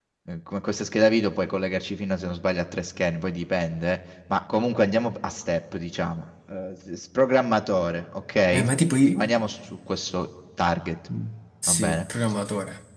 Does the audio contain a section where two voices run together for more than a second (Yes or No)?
No